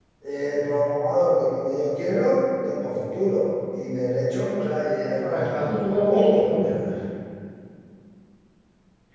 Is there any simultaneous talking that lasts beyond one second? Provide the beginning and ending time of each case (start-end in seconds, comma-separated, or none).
5.2-6.8